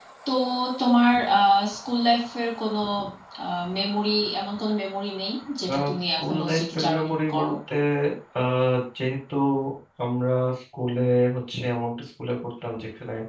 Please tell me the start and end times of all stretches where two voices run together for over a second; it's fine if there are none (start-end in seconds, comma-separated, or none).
5.7-7.5